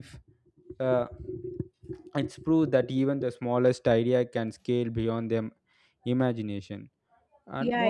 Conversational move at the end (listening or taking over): taking over